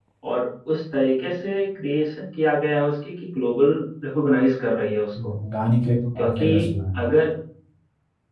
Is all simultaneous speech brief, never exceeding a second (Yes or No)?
Yes